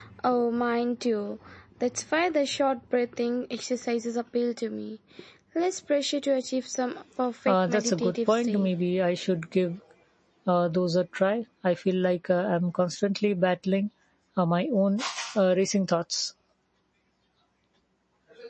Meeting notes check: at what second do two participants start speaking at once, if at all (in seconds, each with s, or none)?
7.5 s